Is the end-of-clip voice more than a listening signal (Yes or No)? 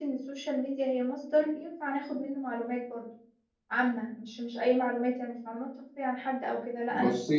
No